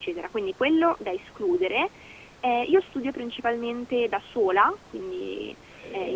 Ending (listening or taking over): listening